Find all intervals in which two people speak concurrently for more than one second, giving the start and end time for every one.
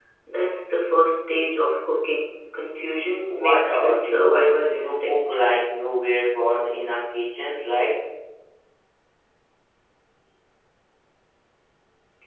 3.3-5.2

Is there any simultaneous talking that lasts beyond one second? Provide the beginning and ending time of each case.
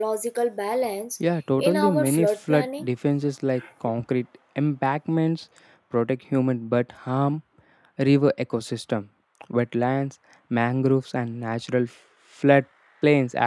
1.6-2.9

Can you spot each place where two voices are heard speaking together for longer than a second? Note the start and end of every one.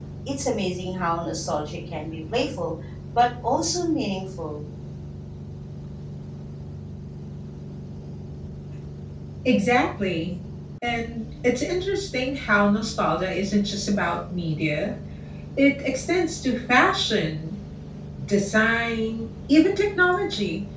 none

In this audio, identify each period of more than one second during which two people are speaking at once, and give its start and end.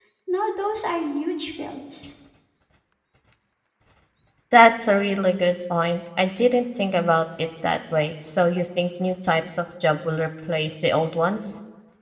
none

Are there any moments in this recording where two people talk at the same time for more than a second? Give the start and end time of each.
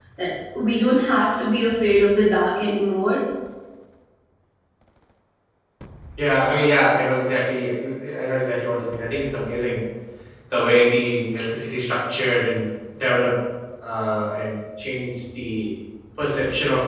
none

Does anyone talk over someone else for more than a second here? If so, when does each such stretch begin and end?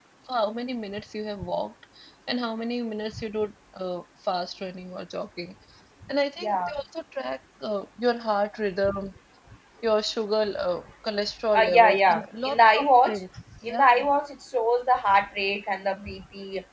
11.6-13.2

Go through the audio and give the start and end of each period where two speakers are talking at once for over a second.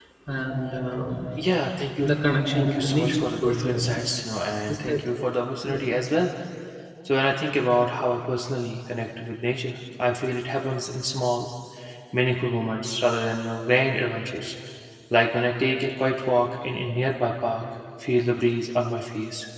2.5-4.0

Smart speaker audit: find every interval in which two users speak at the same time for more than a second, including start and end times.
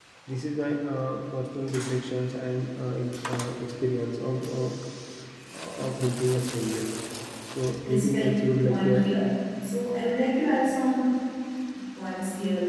7.8-9.1

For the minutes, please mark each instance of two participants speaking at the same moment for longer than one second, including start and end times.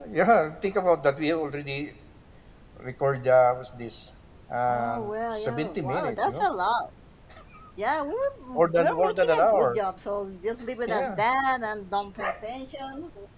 4.7-6.5, 8.6-9.8

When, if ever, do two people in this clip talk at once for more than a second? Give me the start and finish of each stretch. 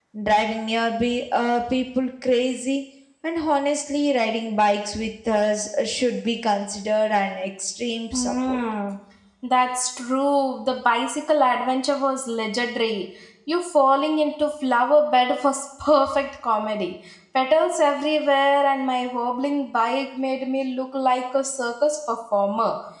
none

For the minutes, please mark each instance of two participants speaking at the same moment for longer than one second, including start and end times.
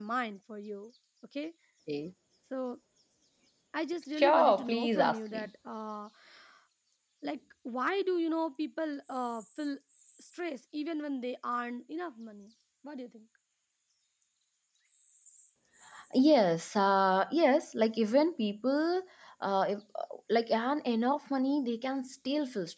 4.1-5.5

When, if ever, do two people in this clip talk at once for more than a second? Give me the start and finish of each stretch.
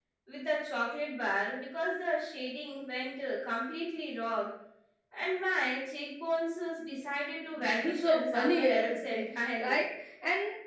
7.5-9.8

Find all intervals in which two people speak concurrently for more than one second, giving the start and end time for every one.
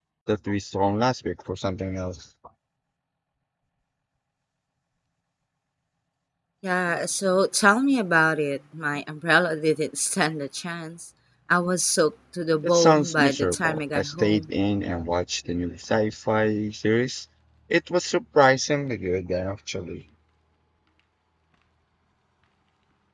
12.6-14.5

